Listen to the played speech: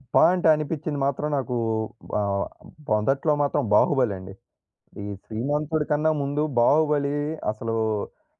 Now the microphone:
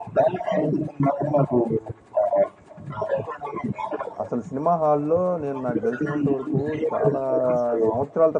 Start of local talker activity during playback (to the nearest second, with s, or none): 4 s